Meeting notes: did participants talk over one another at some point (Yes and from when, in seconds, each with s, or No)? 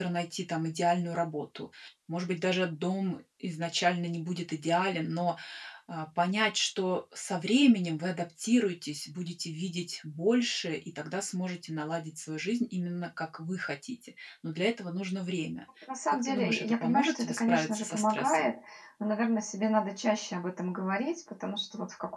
Yes, from 16.1 s